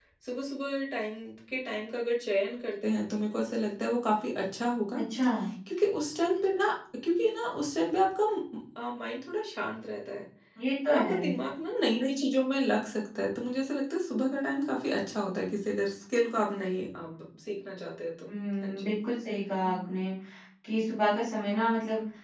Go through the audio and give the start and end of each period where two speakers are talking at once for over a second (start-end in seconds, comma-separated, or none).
none